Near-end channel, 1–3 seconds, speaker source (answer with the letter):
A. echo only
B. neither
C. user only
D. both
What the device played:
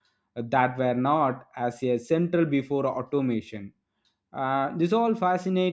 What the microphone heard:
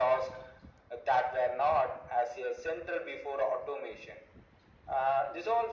A